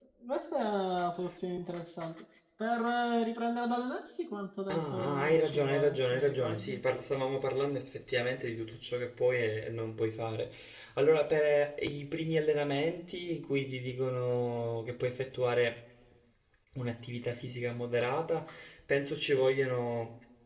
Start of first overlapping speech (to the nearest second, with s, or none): 5 s